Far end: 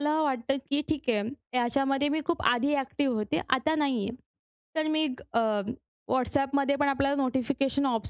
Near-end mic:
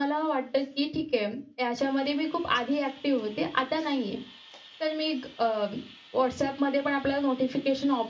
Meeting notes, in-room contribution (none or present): none